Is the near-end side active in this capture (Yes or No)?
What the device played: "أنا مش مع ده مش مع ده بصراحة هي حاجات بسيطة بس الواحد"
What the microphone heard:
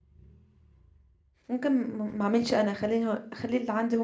Yes